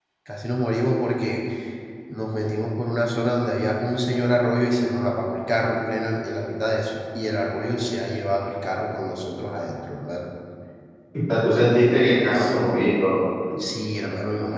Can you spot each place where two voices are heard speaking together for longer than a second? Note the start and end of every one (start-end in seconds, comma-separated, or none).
none